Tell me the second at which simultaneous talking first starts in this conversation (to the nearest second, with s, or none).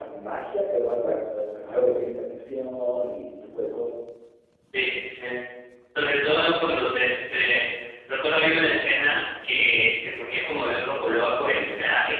none